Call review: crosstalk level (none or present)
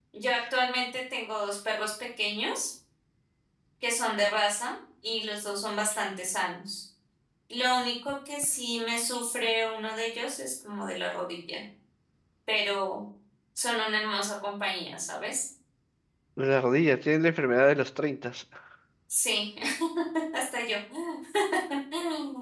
none